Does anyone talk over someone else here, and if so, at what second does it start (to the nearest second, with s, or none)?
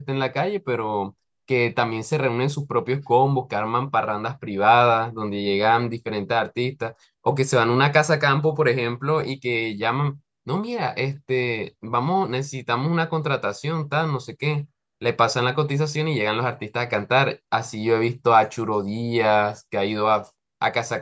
none